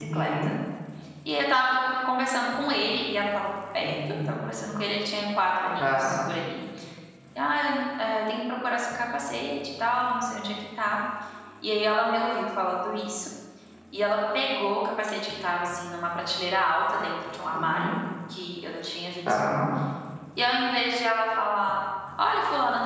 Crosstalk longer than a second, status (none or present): none